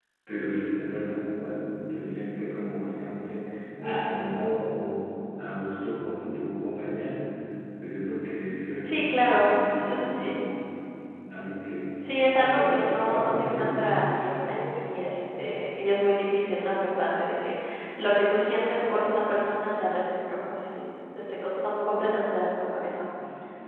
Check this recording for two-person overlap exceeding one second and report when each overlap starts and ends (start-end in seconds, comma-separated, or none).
8.8-10.4, 12.4-13.9